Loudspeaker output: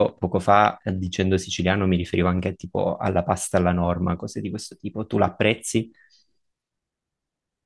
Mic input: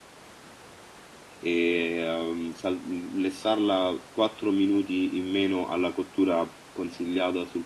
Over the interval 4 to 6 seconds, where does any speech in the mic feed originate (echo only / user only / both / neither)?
user only